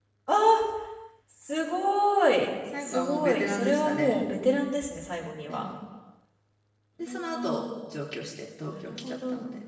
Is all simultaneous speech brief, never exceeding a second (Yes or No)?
No